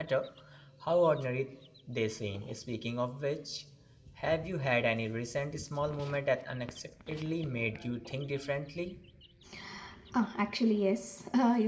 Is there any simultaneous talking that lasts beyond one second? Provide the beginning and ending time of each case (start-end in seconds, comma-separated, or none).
none